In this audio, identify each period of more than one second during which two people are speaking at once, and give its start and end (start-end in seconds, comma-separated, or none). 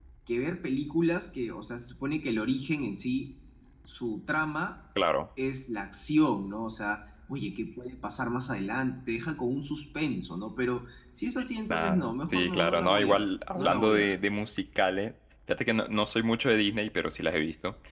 11.7-14.1